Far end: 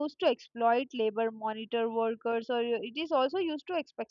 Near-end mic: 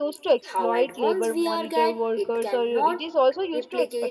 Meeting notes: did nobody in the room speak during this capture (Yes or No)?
No